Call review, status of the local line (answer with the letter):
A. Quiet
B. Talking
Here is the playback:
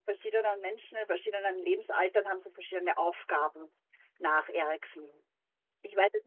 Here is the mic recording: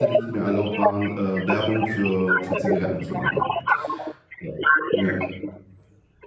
B